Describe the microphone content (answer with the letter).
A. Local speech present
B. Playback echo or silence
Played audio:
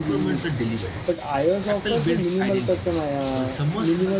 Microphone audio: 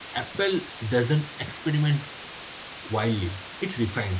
A